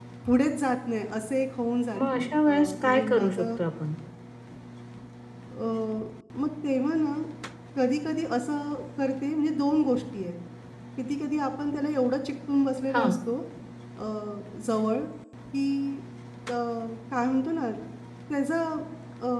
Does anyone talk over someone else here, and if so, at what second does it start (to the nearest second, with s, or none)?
2 s